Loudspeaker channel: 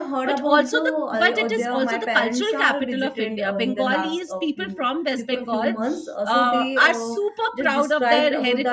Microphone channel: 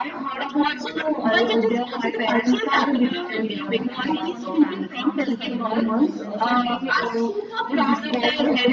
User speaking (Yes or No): Yes